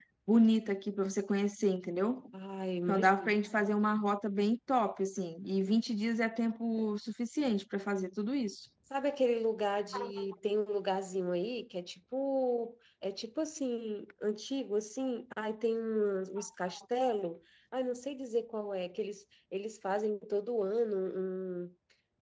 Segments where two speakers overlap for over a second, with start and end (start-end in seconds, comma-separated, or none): none